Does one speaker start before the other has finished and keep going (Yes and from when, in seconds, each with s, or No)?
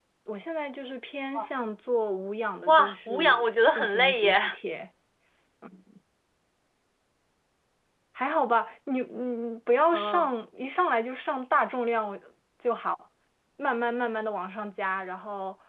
Yes, from 2.7 s